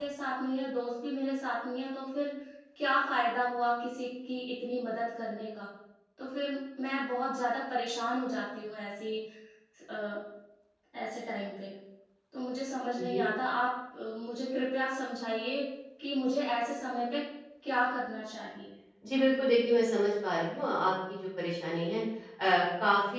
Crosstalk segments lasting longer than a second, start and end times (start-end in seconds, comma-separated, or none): none